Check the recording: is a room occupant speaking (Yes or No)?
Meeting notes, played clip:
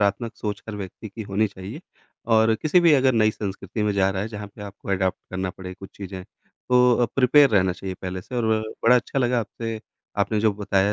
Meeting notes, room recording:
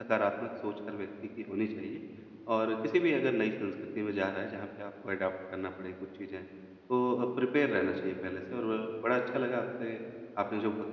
No